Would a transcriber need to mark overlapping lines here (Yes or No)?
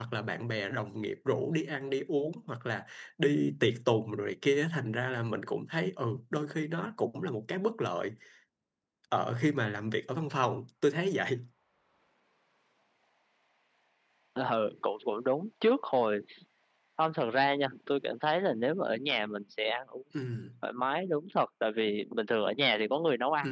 No